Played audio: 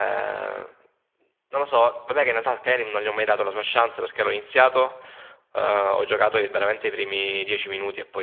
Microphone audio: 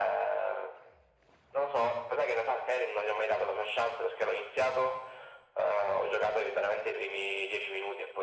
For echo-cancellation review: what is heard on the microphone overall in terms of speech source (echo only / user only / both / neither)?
echo only